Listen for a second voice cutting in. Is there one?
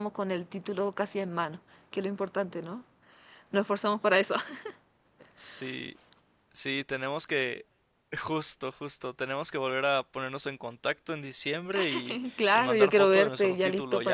Yes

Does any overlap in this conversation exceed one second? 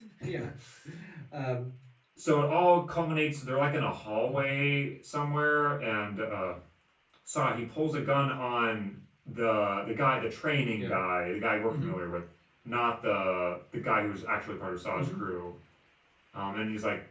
No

